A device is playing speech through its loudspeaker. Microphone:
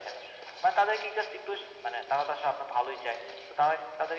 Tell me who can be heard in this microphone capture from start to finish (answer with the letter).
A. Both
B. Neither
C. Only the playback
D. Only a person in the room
C